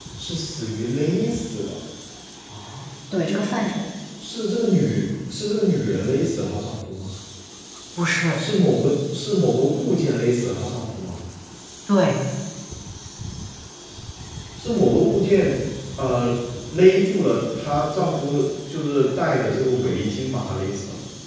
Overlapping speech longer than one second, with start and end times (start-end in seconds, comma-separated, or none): none